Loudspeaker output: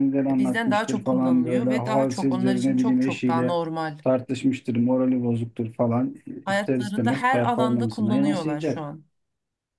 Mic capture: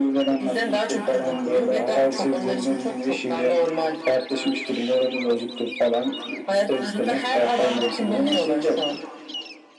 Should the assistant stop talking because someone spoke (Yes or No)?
No